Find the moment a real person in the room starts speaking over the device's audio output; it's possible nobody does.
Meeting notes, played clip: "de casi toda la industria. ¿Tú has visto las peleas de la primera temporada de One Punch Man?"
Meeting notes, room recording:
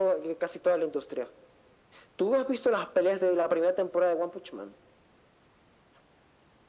none

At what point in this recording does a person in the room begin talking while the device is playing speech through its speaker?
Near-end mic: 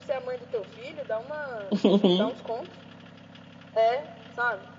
1.7 s

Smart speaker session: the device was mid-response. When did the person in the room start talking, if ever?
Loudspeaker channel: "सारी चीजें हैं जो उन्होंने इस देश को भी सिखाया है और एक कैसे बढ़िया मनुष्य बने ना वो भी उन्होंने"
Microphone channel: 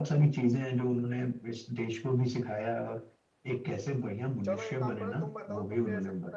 4.4 s

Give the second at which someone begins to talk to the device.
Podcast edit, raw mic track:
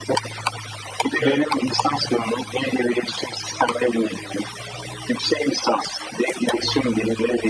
1.2 s

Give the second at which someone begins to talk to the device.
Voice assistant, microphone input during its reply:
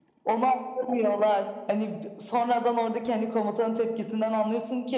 none

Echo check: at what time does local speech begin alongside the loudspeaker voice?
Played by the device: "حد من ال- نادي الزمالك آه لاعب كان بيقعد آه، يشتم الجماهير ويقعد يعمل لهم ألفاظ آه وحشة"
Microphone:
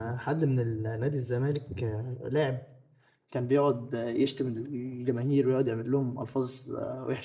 none

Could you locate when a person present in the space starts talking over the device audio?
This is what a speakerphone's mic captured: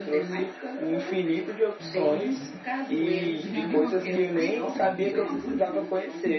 1.8 s

